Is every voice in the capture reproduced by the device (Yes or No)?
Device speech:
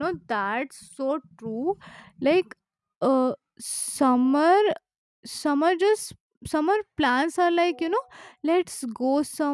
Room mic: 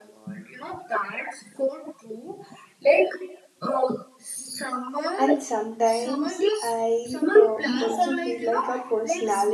No